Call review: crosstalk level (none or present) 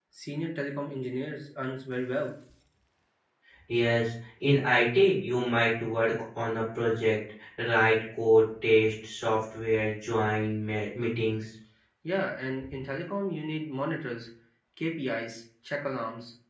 none